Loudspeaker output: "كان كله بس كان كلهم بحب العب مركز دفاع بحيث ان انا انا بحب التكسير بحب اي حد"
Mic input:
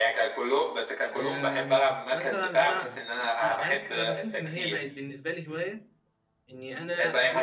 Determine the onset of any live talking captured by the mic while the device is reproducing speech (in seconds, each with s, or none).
1.1 s